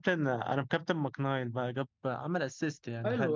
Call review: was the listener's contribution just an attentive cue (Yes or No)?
No